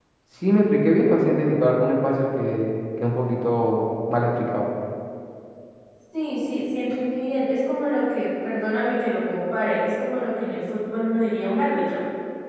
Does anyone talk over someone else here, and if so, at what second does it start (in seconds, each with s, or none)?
none